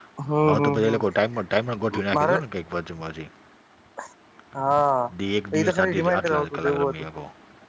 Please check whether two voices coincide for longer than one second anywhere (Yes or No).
Yes